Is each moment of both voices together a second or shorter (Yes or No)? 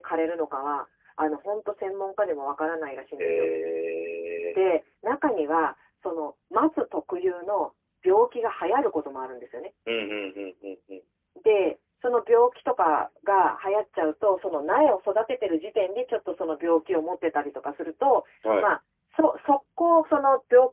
Yes